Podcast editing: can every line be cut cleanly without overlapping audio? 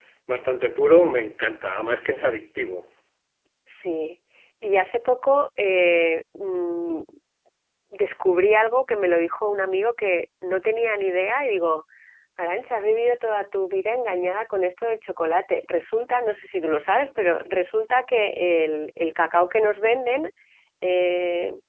Yes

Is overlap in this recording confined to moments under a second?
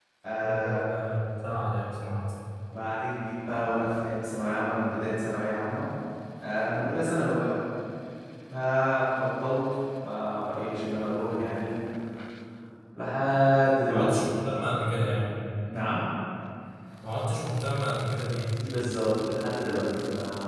Yes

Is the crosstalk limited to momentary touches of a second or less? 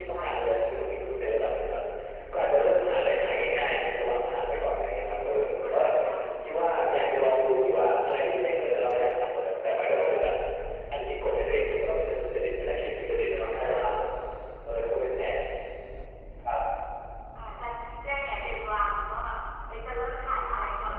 Yes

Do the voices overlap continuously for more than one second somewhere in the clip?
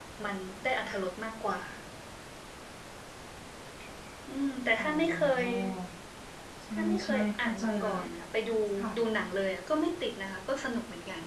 Yes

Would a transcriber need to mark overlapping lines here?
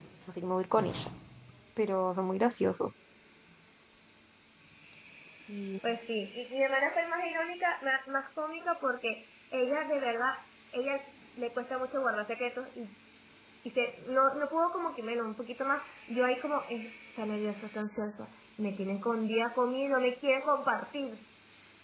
No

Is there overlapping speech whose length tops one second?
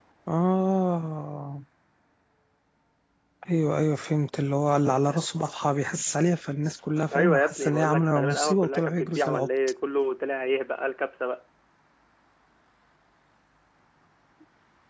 Yes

